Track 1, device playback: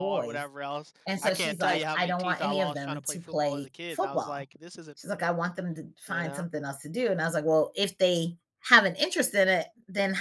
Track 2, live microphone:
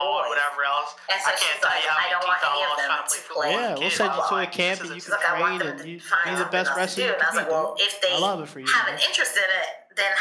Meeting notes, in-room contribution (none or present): present